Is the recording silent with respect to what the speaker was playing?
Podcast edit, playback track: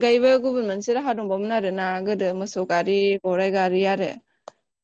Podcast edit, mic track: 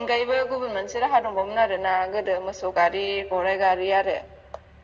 No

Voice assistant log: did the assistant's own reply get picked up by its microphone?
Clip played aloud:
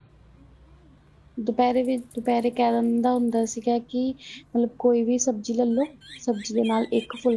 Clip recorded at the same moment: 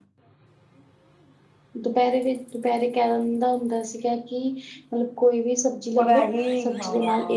Yes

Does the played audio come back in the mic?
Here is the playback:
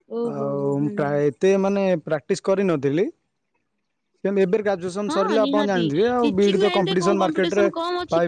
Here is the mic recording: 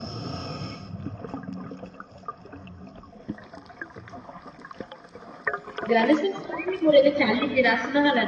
No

